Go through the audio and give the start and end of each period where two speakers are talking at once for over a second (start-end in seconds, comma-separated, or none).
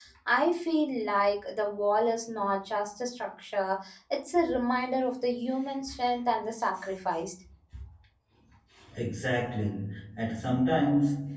none